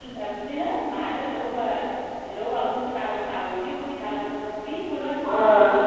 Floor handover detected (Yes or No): Yes